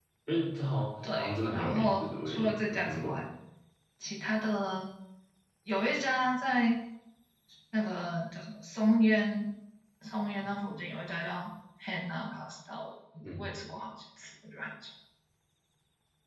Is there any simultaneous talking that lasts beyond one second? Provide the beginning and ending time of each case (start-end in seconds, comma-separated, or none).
1.1-3.2